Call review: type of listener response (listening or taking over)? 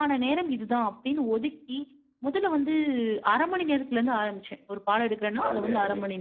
taking over